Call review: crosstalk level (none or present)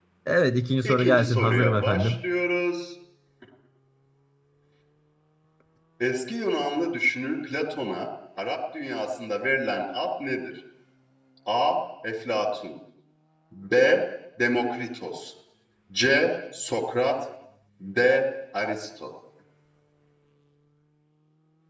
present